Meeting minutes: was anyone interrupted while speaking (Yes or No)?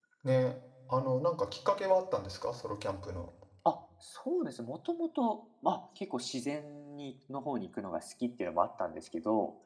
No